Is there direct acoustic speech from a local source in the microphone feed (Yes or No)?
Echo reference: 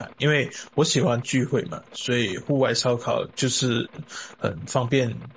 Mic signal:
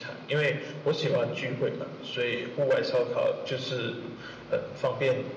No